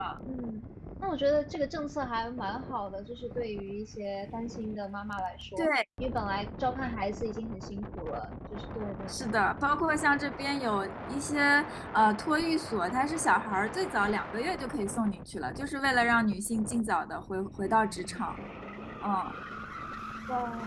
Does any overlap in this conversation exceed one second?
No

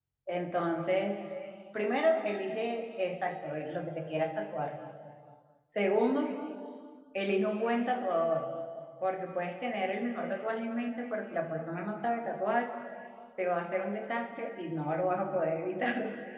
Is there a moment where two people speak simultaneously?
No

